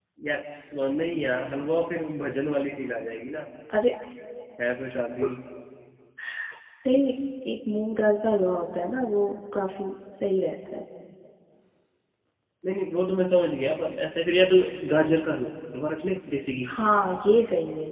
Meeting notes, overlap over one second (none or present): none